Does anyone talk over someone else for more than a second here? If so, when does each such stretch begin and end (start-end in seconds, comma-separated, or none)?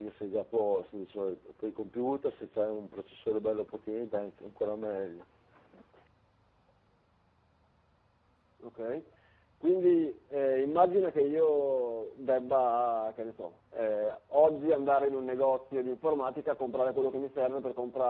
none